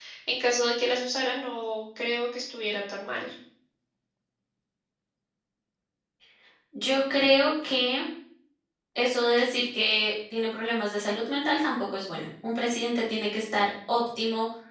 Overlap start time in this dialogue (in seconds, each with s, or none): none